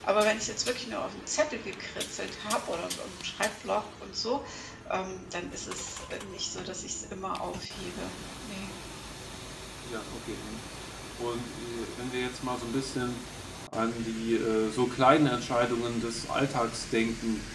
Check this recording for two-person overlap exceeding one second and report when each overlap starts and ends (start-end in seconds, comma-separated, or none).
none